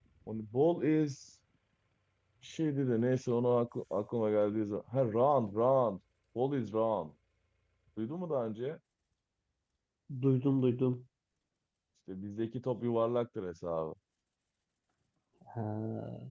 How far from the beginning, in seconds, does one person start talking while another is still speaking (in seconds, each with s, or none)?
none